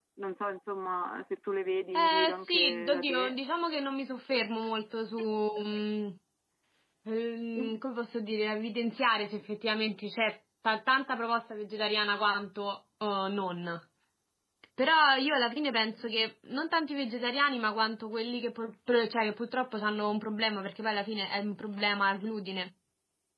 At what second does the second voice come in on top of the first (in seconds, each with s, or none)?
1.9 s